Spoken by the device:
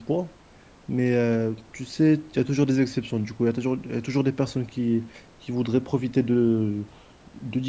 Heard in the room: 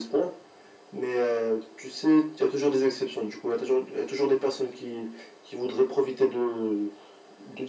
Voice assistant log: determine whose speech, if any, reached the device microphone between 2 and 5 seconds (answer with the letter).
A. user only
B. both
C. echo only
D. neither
C